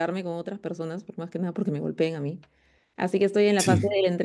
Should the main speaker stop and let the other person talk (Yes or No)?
No